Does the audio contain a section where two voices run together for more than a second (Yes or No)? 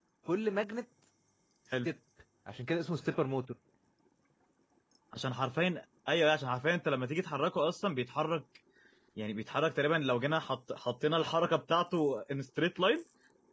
No